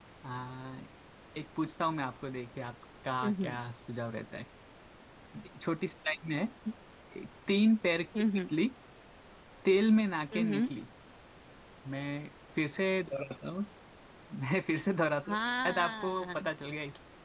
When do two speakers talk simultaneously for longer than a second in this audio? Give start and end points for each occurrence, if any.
15.3-16.5

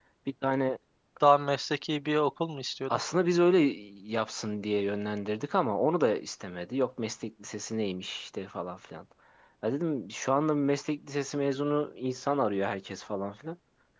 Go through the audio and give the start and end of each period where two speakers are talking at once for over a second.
none

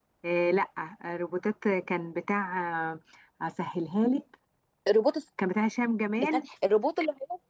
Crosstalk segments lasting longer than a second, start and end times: none

